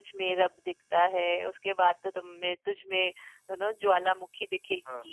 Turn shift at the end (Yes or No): Yes